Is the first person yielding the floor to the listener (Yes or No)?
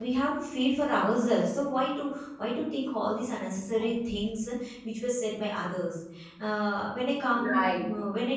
No